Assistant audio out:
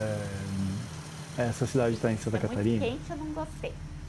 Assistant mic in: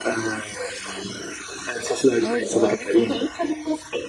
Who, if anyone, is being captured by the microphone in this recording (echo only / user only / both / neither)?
both